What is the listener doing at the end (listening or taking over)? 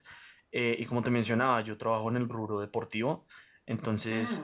listening